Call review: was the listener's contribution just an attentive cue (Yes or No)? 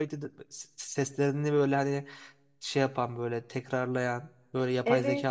No